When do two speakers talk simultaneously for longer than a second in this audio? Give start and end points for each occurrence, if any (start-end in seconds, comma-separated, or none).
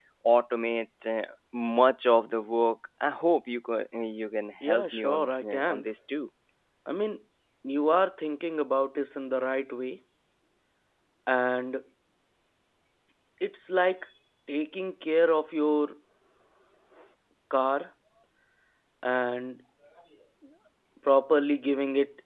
4.6-5.9